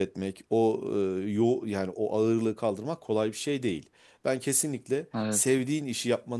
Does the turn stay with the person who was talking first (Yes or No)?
Yes